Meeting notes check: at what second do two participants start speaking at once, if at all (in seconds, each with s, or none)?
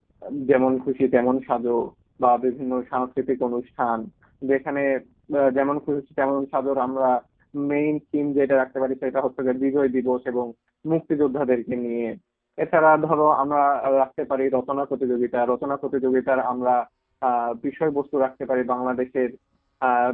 none